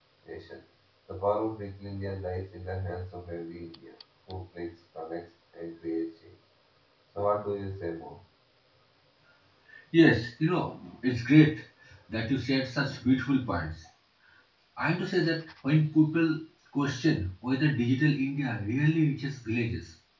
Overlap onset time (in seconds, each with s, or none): none